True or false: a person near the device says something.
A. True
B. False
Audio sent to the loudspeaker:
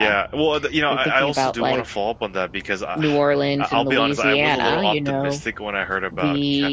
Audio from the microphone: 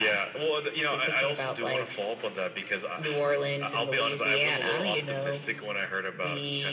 B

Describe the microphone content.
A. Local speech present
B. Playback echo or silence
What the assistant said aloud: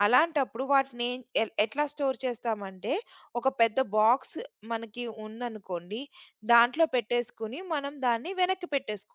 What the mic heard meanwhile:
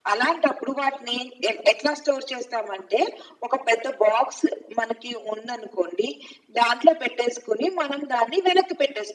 B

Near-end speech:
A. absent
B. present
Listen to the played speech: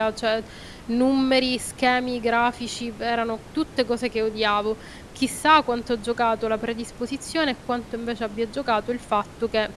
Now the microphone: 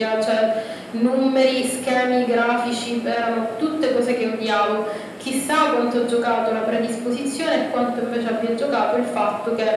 A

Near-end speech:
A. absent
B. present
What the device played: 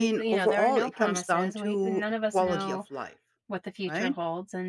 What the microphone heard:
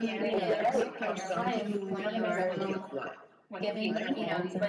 B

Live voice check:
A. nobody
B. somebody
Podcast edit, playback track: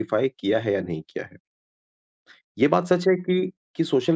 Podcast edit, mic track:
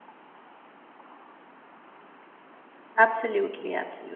B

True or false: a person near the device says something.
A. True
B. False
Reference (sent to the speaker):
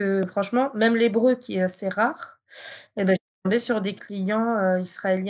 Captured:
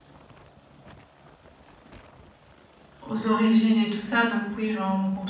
A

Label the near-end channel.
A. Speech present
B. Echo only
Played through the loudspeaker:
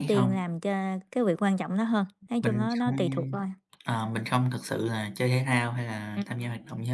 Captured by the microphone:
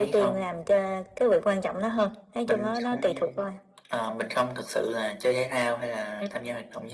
B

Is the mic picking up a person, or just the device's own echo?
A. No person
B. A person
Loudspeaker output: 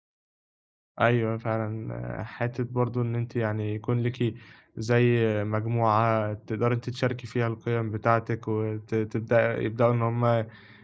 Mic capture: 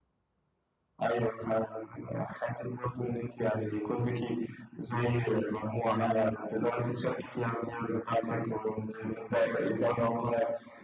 A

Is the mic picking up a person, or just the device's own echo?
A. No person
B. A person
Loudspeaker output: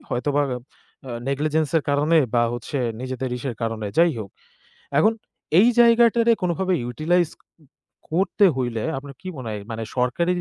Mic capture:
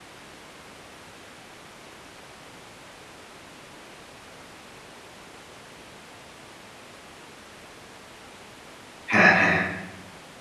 B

